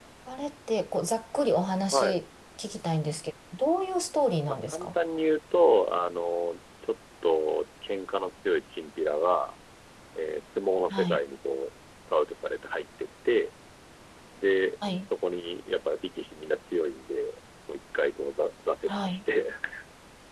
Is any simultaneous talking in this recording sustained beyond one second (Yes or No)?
No